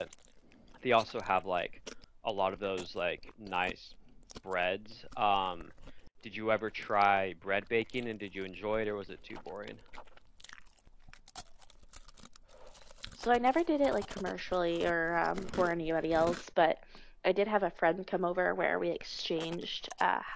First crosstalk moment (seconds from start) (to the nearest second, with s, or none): none